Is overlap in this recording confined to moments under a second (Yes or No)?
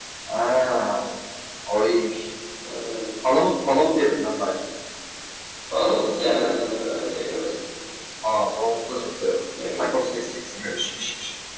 Yes